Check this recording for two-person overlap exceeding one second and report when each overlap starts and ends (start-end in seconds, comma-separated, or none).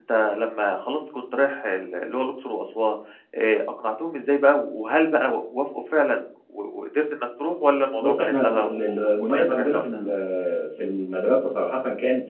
8.0-10.0